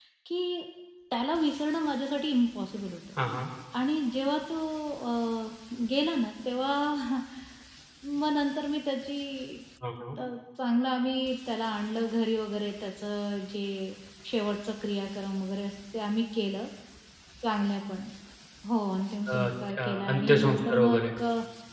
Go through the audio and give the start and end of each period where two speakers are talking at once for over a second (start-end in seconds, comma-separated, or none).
19.3-21.0